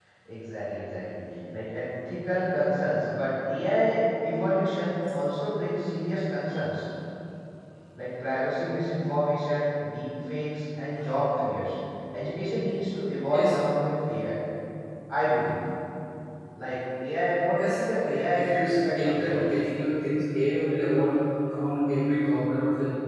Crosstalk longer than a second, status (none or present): present